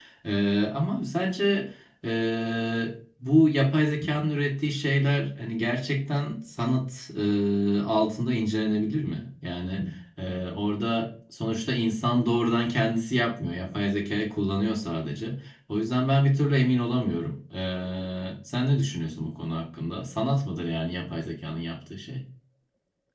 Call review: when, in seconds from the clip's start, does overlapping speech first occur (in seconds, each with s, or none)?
none